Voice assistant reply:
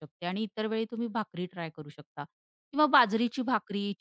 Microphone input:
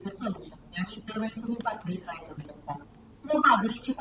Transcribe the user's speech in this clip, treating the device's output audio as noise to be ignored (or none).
none